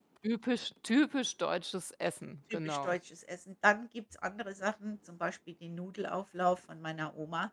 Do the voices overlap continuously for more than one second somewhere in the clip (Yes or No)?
No